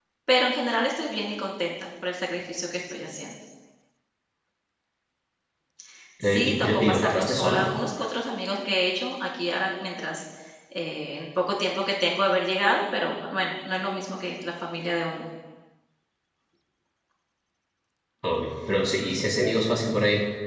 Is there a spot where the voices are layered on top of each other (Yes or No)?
Yes